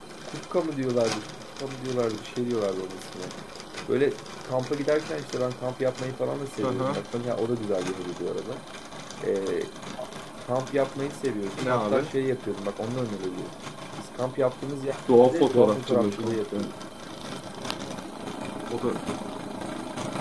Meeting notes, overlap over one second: present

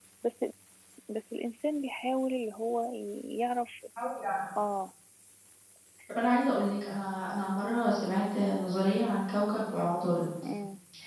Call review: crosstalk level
none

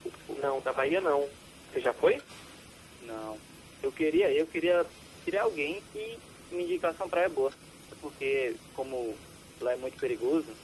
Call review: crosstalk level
none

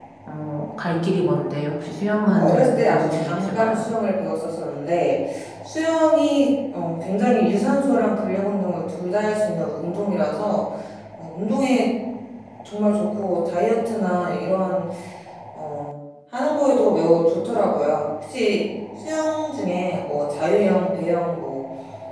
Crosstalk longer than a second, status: present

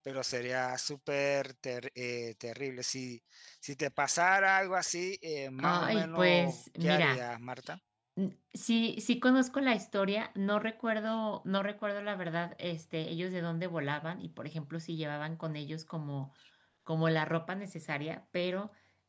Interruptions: present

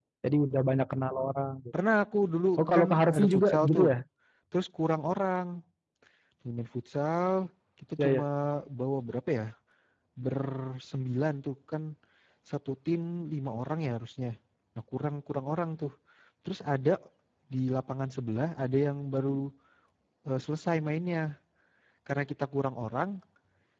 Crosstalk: present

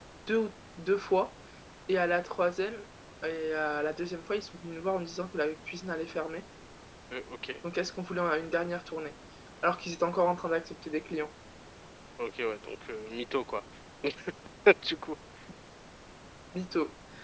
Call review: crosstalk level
none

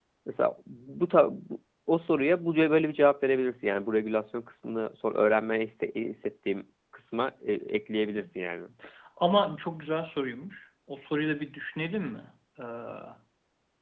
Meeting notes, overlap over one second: none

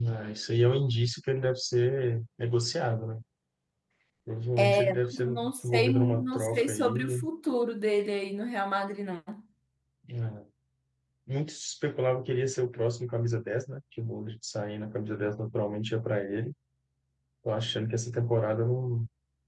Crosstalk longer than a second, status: present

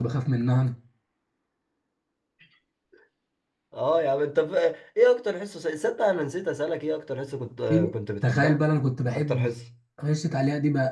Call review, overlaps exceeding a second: none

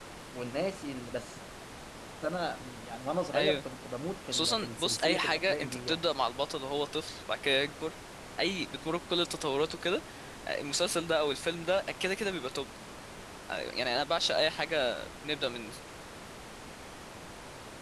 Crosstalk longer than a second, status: present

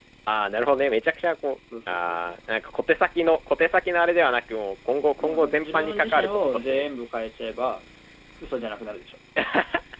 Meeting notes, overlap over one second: present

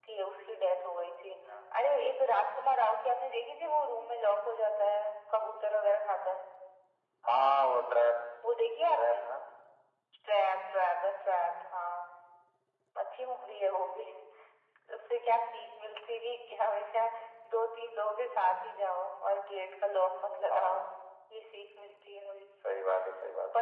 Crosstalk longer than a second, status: none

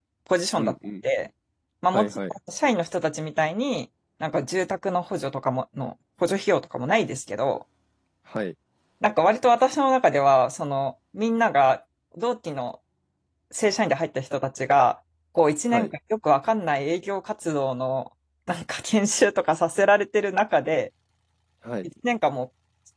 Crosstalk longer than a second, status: none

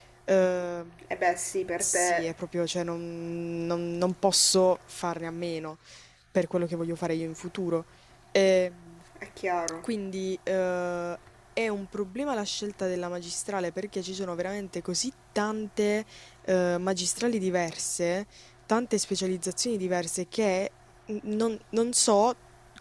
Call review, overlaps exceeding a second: none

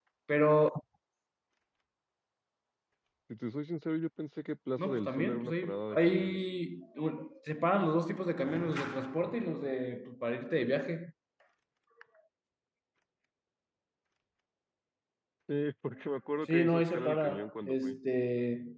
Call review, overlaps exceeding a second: present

